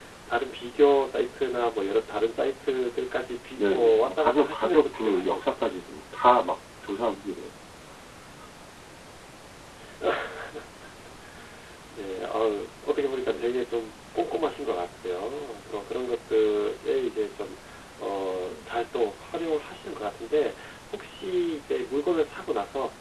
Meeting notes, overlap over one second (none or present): present